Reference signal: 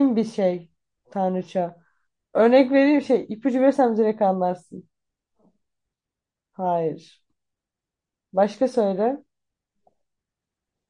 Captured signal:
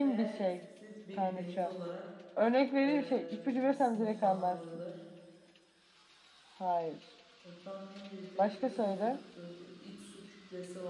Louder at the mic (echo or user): echo